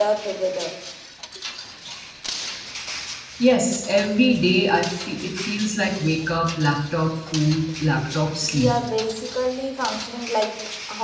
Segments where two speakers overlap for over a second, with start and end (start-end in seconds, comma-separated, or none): none